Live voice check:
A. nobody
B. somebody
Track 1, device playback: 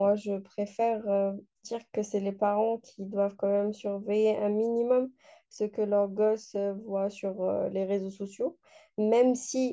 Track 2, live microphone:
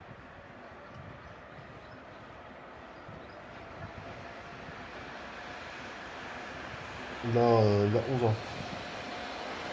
B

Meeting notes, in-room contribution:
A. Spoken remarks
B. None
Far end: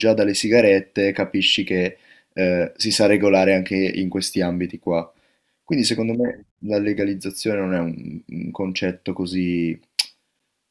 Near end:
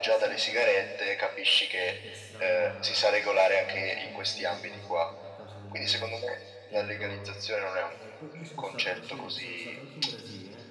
A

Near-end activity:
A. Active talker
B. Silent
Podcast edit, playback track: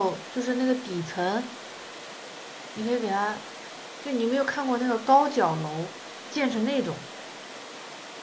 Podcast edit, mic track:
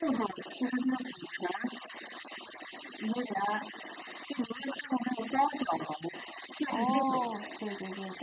A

